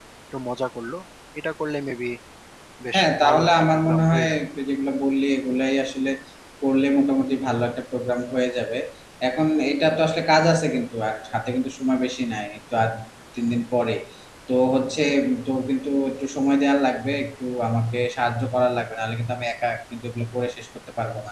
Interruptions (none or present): present